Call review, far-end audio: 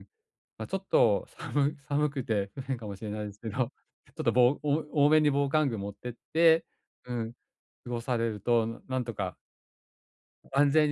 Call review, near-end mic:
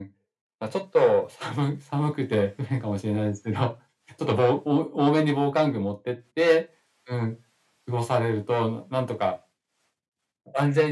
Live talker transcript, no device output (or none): none